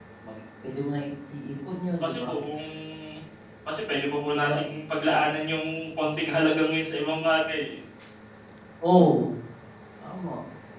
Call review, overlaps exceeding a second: none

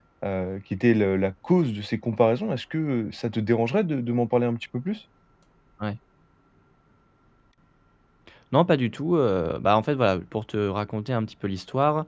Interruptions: none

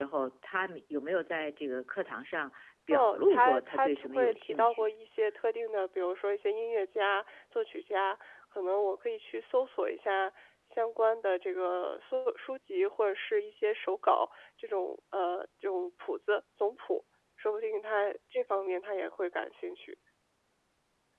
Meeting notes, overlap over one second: present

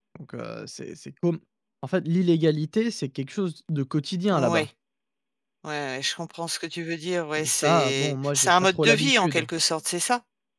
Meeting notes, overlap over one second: present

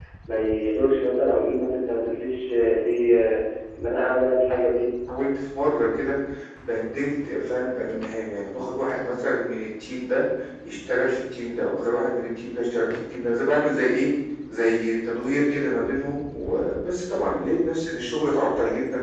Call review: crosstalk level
none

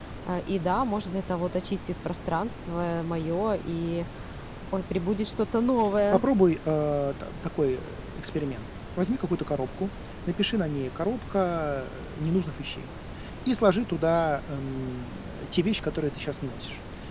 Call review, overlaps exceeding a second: none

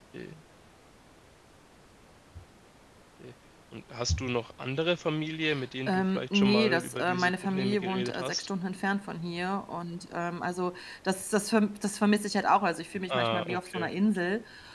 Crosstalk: present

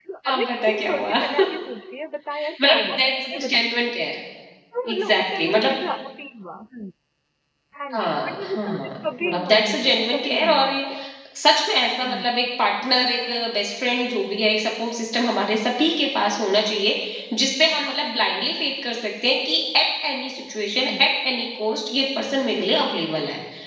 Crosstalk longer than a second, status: present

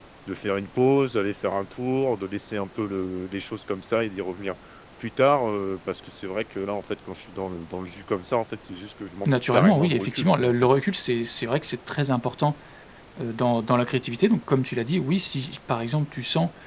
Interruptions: present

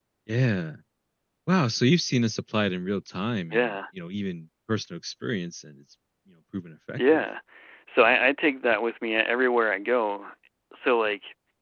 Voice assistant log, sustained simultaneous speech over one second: none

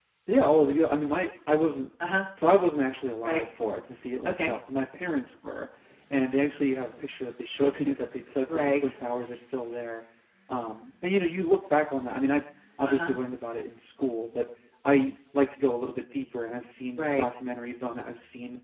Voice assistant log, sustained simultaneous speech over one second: none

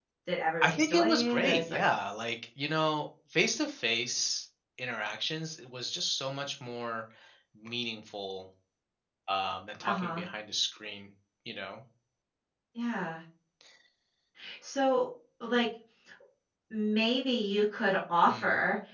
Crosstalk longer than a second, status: present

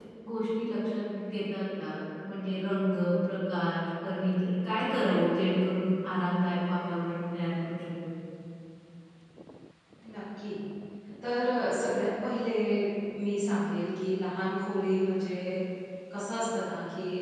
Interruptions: none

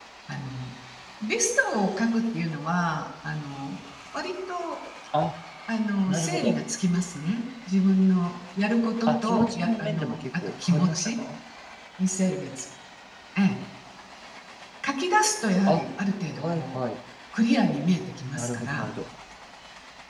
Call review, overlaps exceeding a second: present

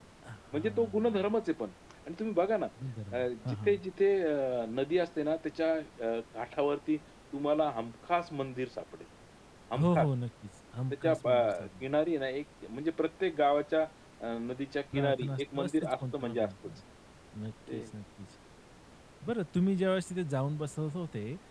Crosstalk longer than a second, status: present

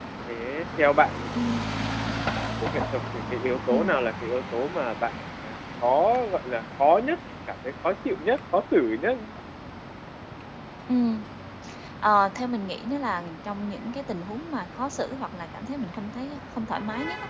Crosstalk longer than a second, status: none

